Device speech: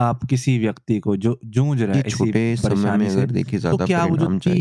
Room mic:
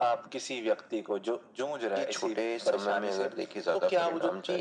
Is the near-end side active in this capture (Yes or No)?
No